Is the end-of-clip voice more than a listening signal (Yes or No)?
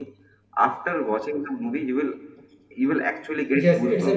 Yes